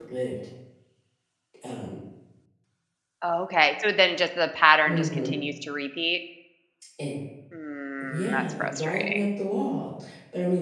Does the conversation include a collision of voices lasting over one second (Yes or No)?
Yes